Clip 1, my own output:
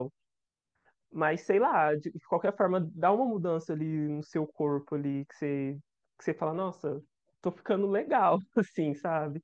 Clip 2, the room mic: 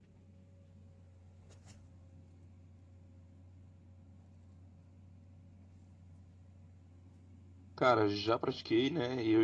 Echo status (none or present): none